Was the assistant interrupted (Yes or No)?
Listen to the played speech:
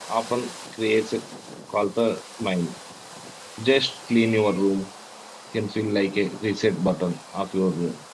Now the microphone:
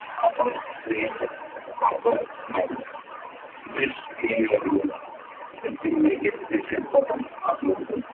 No